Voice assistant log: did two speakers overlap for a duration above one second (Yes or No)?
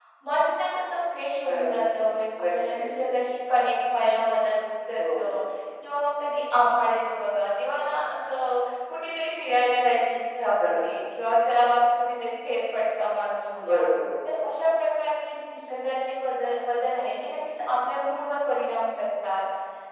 No